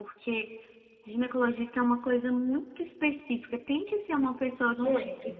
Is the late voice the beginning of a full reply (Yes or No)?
No